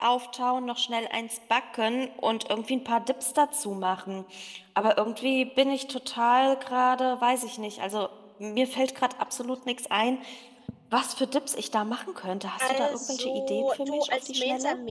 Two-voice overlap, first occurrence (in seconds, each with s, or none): 12.6 s